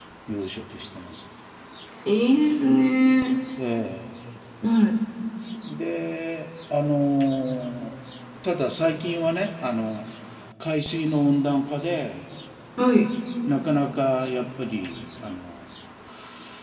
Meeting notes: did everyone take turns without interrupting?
Yes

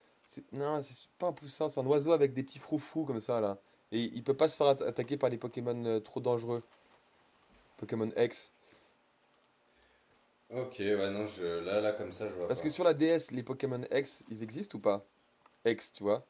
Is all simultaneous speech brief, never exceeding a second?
Yes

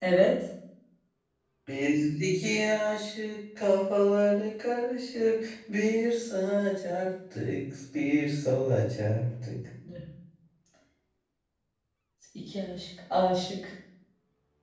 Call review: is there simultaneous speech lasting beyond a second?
No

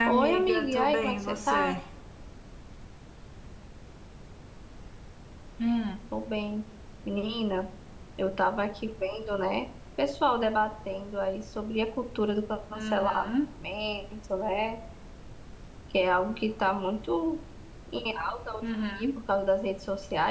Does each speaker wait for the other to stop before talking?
No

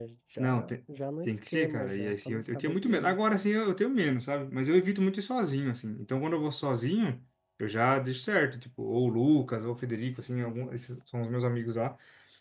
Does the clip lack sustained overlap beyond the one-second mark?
No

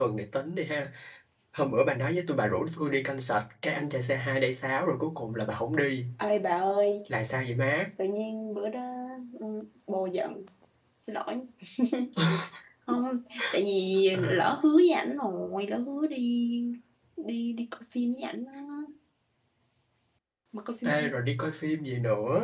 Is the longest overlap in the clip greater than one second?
No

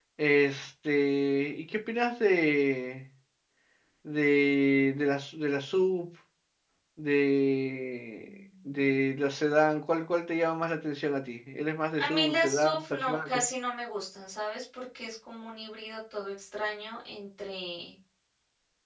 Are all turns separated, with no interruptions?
No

